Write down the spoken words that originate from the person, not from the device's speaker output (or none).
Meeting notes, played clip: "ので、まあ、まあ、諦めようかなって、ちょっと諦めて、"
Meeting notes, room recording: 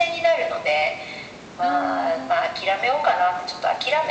あ